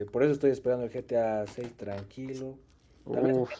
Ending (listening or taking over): listening